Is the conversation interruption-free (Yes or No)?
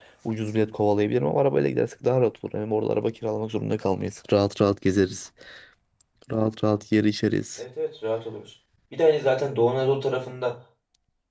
Yes